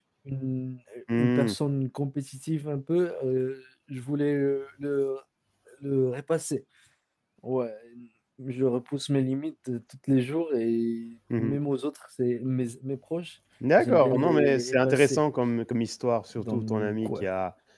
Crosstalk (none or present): present